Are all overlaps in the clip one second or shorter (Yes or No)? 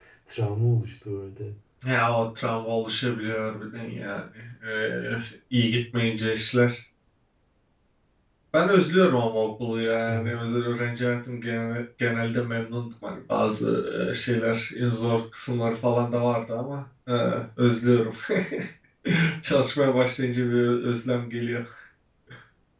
Yes